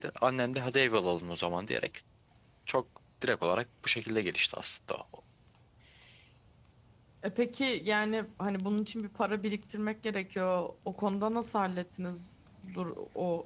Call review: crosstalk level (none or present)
none